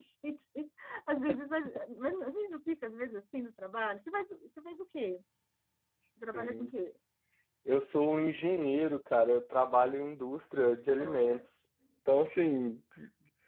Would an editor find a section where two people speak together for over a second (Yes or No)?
No